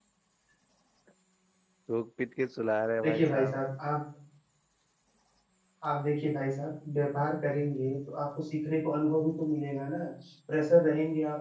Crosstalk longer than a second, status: none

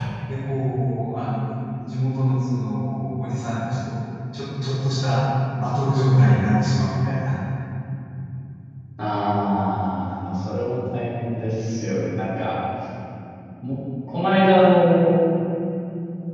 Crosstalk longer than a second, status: none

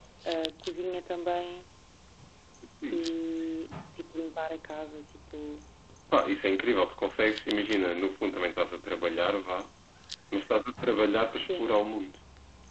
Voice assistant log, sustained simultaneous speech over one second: none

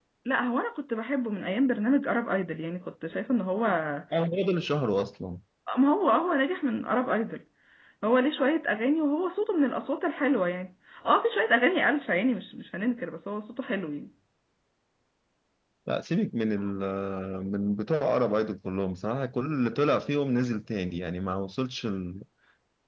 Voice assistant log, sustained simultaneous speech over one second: none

